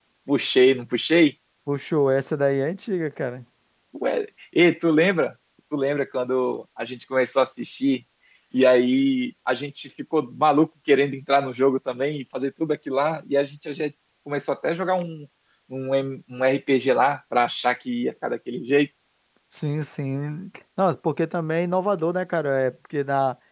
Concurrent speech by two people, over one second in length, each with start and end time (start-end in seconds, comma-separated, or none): none